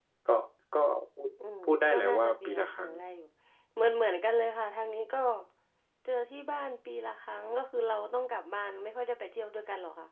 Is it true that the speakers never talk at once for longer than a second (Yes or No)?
No